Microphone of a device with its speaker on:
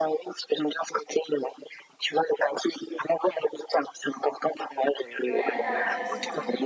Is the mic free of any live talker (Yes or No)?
No